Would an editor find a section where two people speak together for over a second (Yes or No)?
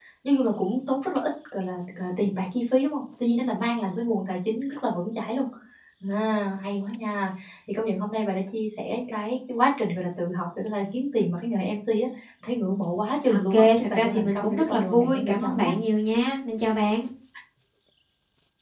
Yes